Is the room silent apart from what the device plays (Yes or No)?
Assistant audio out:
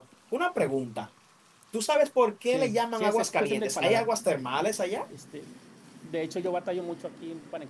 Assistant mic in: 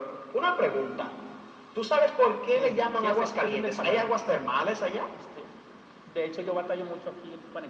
Yes